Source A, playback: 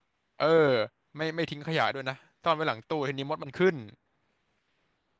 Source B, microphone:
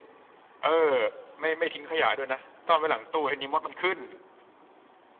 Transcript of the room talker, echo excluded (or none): none